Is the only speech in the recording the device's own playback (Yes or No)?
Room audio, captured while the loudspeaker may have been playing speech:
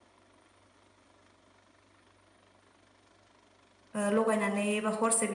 No